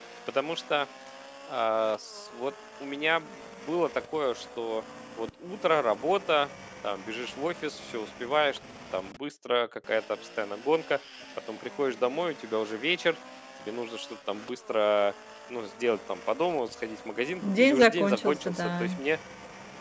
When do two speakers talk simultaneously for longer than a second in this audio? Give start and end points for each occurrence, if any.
17.4-18.9

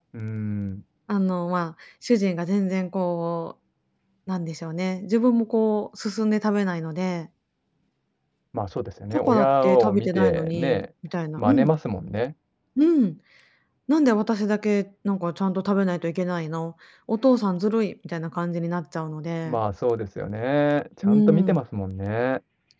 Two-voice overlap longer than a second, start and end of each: 9.1-10.8

